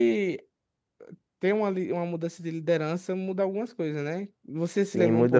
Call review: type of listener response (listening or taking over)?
taking over